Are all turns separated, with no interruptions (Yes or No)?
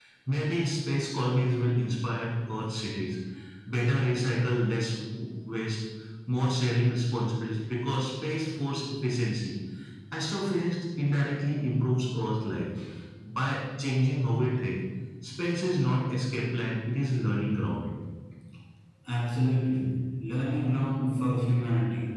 Yes